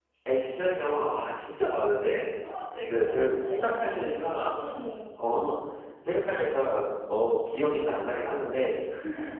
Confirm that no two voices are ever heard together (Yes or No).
No